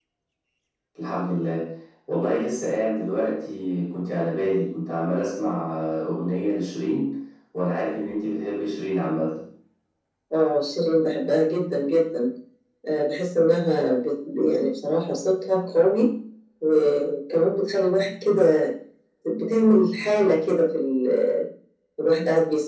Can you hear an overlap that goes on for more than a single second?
No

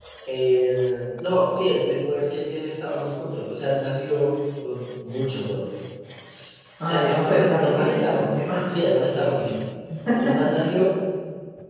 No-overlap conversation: No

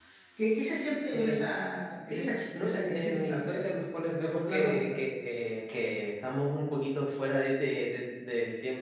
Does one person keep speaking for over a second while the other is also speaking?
Yes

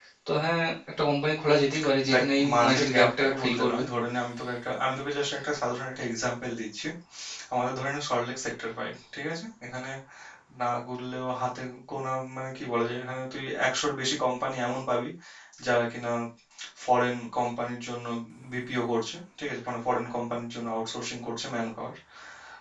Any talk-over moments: Yes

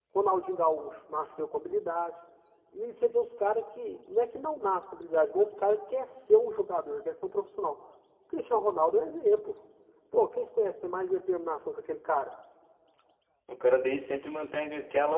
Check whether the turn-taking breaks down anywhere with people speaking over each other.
No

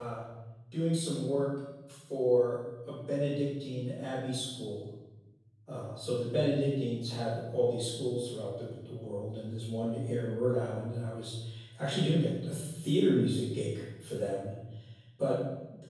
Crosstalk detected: No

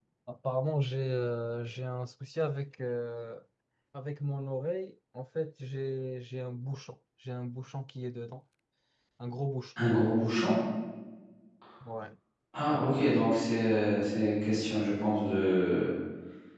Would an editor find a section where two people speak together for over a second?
No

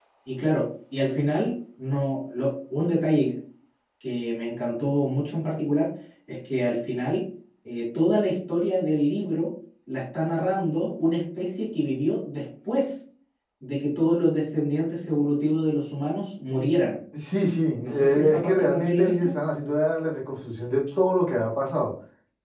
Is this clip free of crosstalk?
No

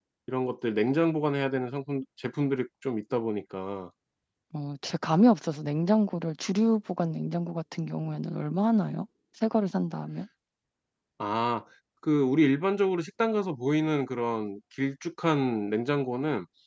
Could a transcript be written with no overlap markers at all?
Yes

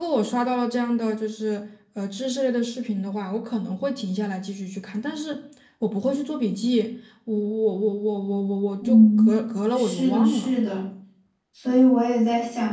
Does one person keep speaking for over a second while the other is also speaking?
Yes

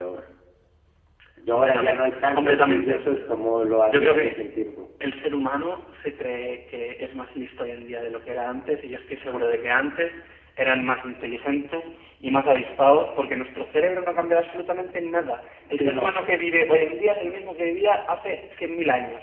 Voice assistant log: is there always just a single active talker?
No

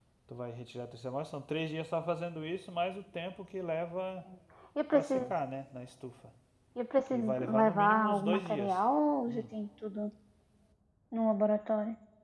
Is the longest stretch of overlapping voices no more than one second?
No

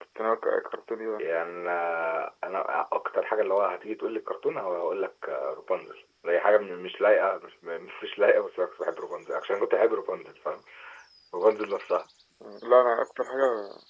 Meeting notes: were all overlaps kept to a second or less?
Yes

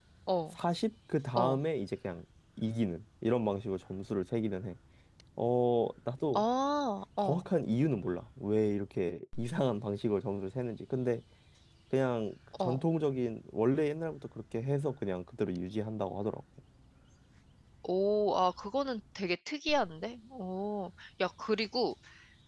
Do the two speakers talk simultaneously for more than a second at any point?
No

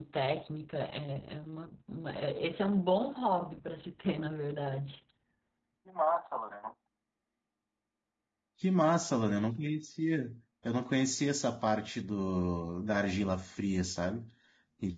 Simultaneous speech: No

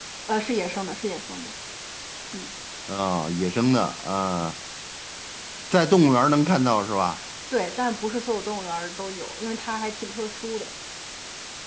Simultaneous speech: No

